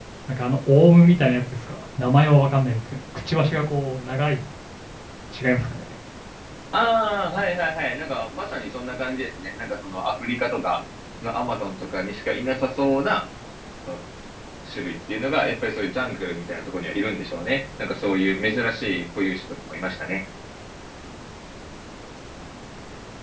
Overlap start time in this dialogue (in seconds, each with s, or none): none